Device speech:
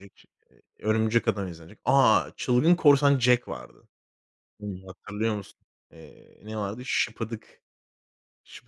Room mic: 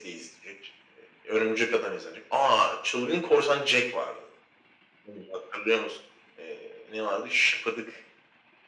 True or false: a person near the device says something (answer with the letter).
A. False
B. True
A